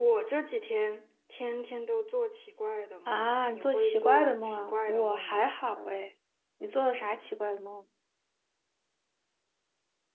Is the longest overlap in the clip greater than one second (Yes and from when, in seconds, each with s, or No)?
Yes, from 3.1 s